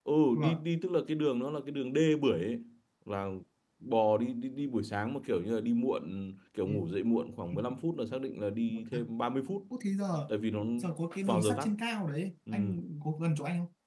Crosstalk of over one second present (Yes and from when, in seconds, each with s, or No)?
No